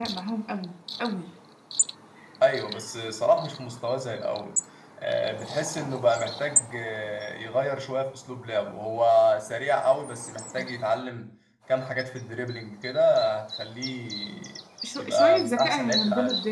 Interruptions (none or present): present